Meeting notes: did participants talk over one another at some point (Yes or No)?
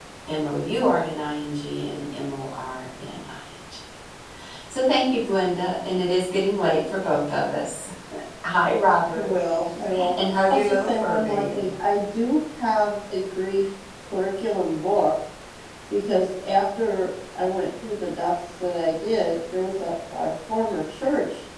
Yes